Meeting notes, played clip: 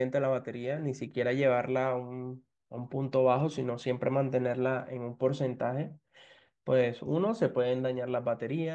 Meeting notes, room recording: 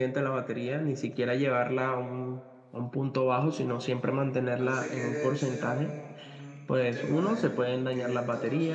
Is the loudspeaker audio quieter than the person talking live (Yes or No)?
No